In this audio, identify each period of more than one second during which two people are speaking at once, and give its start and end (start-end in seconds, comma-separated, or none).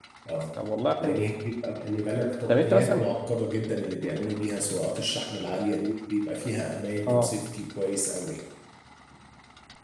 none